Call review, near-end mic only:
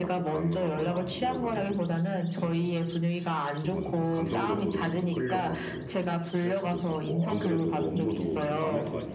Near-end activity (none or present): present